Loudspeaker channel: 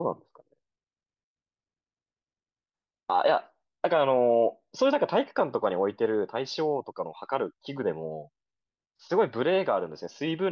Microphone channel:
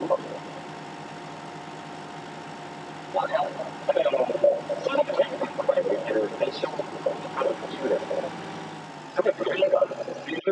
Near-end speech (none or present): none